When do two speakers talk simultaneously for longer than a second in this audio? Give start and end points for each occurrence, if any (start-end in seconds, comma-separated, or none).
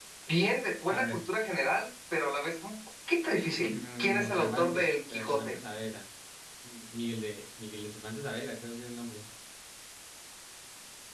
3.7-5.6